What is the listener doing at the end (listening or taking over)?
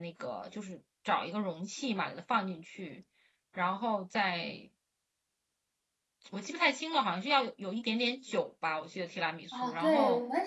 taking over